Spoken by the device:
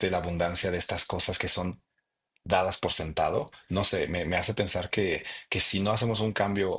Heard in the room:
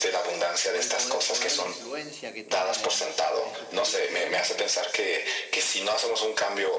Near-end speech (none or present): present